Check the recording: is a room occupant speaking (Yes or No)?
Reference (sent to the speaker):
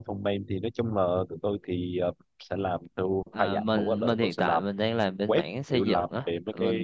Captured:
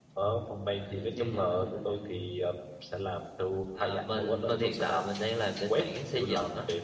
Yes